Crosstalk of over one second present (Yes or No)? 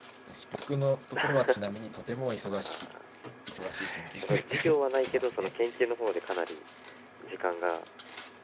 Yes